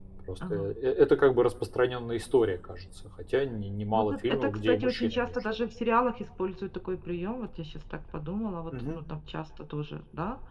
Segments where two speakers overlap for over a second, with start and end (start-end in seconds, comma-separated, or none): 3.9-5.4